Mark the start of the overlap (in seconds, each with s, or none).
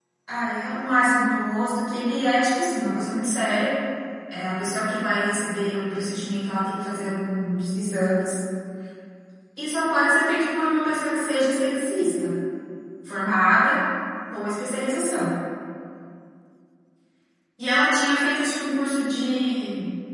none